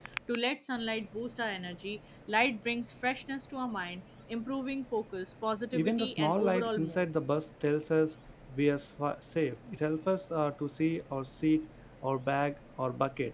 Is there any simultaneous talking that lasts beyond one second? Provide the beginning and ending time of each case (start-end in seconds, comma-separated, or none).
5.7-7.0